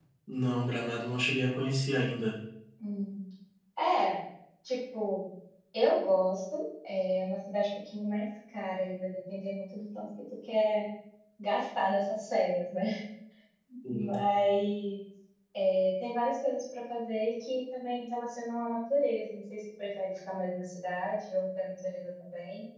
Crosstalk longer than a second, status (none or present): none